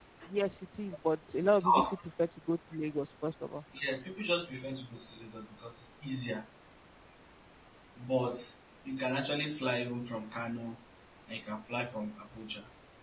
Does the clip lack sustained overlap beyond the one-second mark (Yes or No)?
Yes